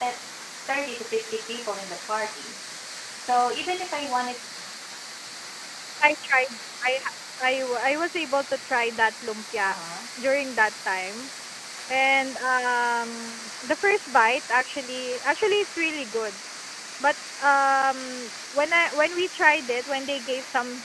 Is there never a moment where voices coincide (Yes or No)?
Yes